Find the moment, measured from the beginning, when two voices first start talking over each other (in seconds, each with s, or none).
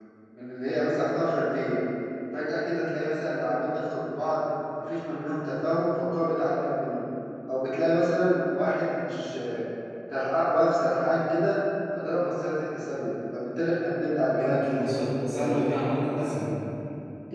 14.3 s